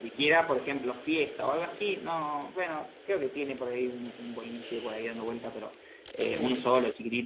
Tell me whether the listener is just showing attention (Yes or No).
Yes